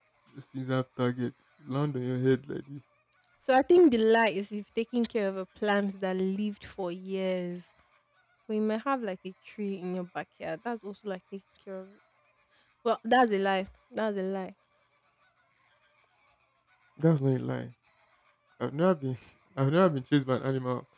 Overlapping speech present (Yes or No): No